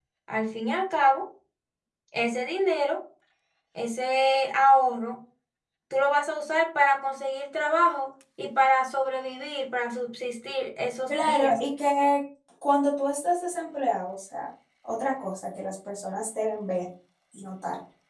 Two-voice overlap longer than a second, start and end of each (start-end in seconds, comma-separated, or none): none